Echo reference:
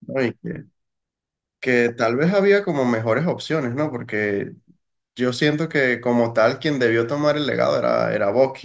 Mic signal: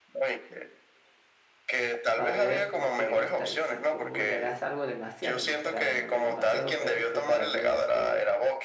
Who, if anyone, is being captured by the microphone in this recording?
both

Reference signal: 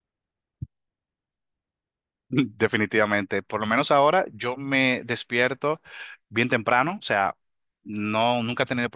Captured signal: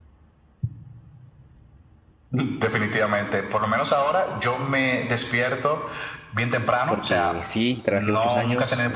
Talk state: both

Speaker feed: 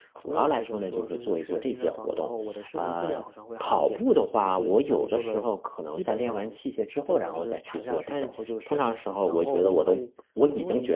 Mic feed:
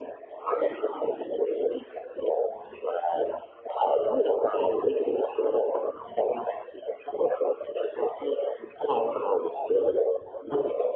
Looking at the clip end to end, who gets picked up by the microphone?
echo only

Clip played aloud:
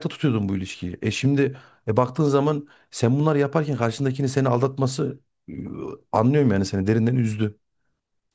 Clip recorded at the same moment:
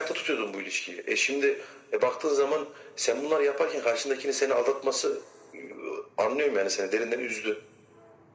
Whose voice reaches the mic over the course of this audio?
echo only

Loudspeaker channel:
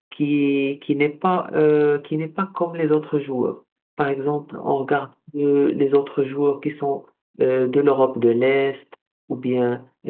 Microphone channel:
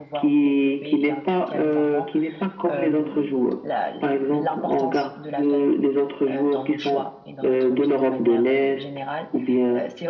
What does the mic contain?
both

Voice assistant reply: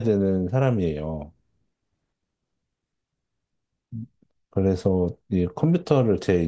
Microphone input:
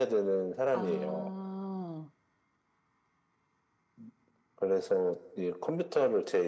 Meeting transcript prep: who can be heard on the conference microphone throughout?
both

